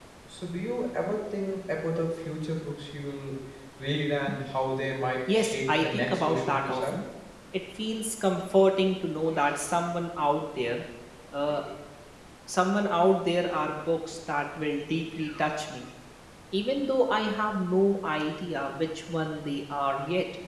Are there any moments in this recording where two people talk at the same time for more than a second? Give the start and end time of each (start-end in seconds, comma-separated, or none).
5.3-7.0